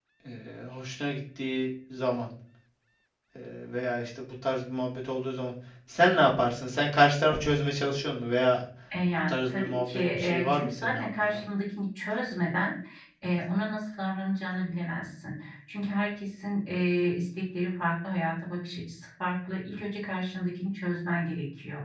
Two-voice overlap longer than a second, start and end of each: 9.3-11.4

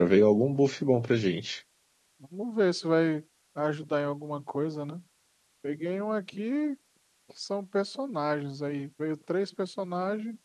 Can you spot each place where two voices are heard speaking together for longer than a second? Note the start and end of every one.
none

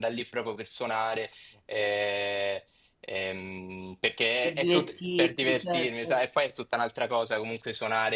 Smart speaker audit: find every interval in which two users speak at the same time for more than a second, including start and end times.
4.4-6.2

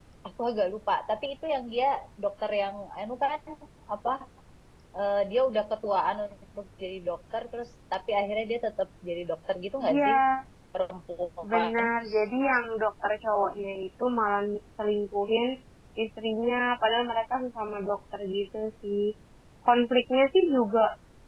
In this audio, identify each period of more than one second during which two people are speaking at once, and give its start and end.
none

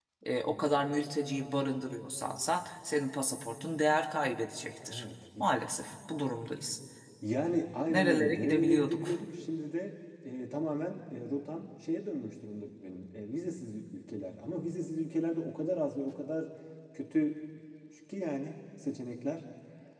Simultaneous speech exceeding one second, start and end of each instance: 7.9-9.1

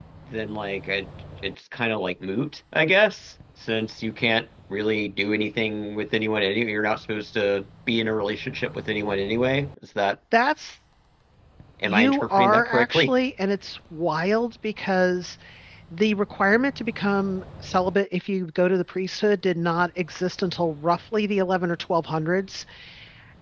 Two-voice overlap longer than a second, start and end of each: 11.8-13.1

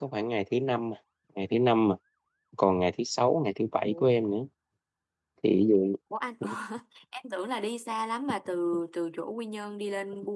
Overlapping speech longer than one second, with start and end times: none

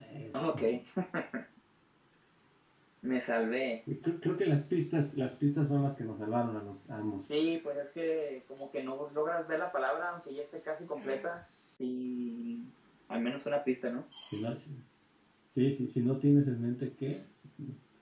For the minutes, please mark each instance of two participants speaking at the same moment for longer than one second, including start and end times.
none

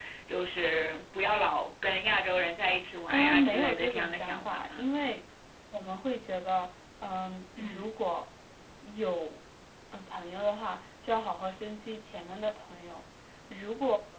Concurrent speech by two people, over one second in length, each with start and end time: 3.1-4.9

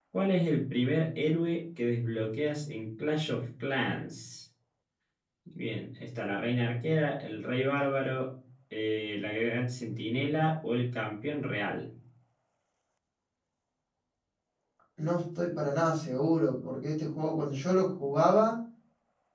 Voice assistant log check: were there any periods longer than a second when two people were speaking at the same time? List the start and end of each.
none

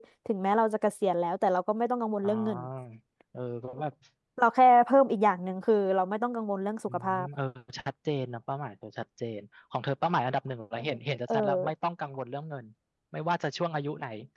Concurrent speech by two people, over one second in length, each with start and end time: none

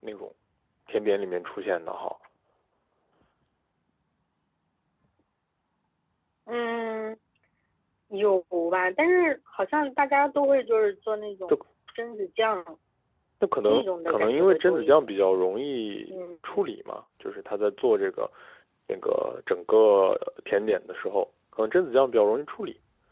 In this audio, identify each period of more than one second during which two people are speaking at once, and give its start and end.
13.6-15.2

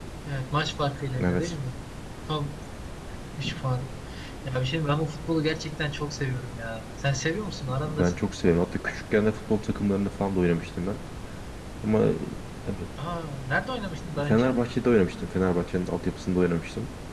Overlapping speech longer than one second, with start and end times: none

